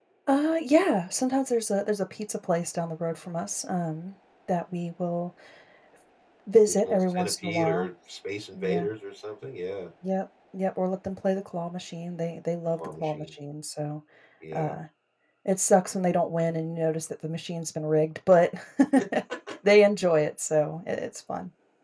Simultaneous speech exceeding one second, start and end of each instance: 6.7-7.9

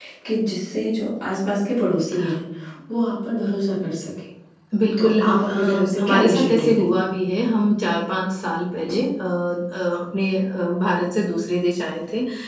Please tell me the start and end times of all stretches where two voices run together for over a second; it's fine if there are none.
5.0-7.0

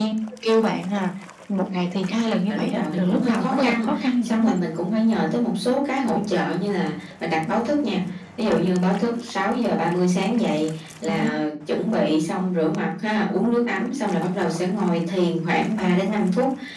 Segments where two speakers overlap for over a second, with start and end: 2.5-4.6

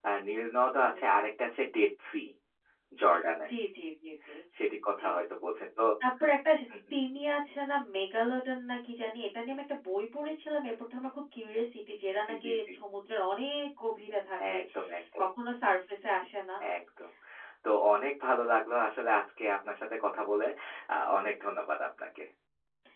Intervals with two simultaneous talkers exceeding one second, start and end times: none

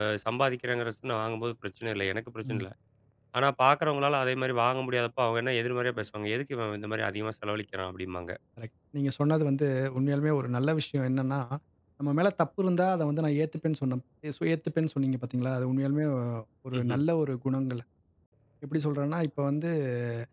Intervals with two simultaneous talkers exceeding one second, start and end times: none

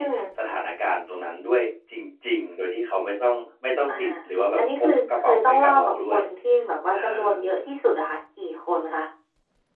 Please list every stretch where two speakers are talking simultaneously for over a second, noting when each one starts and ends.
4.6-6.2

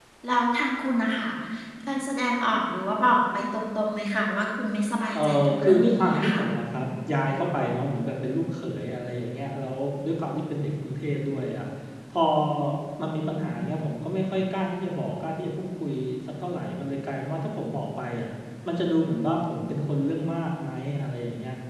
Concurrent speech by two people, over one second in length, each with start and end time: 5.2-6.4

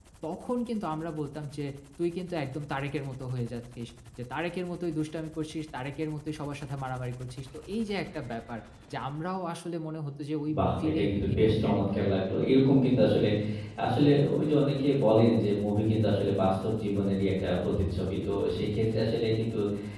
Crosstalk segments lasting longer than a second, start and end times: 10.6-12.1

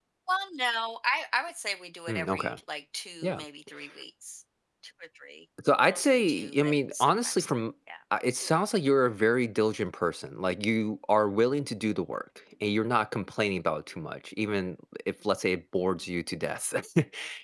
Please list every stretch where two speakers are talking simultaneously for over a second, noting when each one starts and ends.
5.9-7.5

